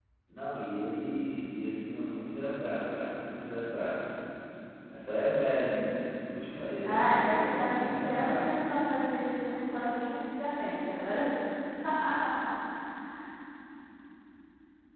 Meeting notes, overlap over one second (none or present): present